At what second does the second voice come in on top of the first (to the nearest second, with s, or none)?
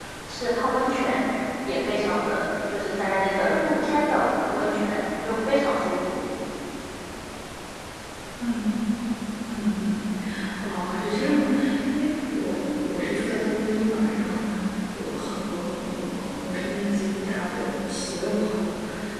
none